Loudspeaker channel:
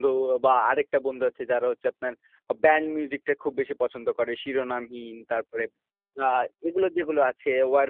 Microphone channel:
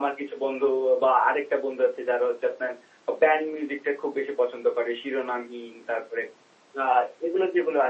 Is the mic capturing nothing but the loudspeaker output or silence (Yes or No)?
Yes